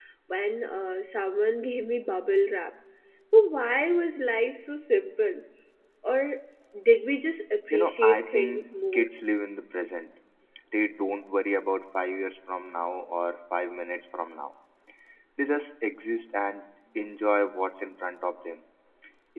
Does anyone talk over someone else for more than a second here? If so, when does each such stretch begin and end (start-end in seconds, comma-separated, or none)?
7.7-9.1